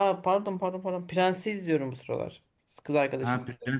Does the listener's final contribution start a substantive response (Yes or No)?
Yes